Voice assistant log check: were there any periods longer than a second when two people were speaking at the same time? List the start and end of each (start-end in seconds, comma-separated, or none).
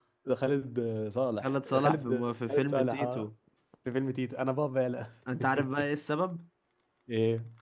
1.4-3.2